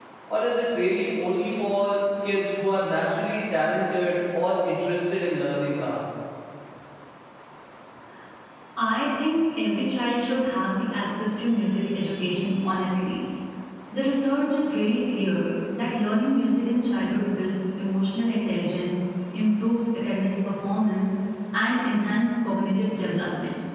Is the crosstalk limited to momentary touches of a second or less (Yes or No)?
Yes